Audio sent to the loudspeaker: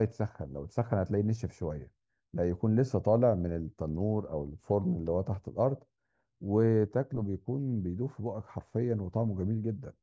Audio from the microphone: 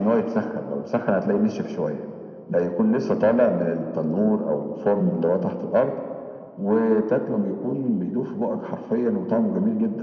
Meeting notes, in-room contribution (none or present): none